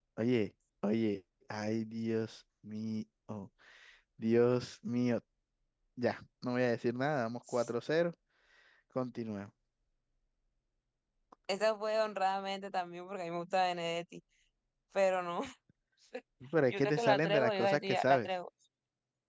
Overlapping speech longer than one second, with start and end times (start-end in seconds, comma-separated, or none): 16.7-18.3